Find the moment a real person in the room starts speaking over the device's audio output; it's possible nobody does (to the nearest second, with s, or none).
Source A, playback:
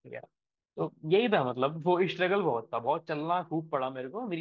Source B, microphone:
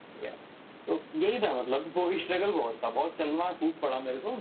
none